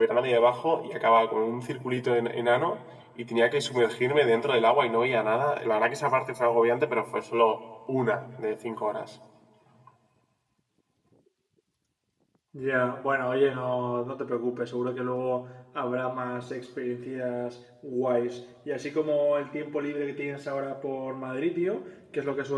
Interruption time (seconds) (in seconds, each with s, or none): none